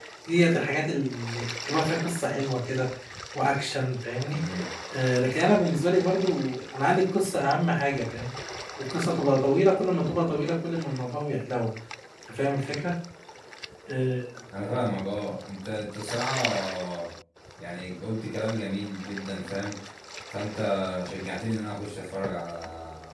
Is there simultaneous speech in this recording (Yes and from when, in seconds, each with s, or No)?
No